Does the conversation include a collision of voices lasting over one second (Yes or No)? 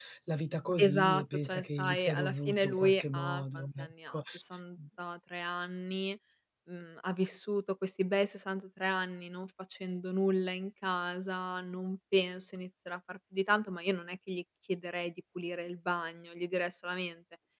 Yes